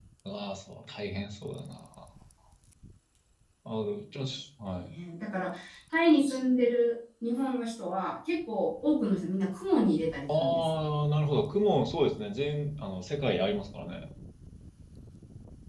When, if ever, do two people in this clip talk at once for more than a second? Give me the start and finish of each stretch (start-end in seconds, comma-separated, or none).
none